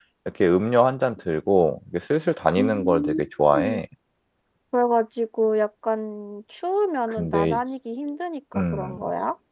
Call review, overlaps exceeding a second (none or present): present